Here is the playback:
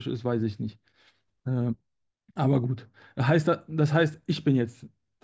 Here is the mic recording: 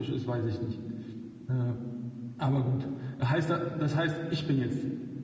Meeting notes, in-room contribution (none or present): none